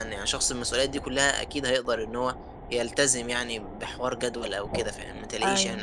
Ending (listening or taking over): taking over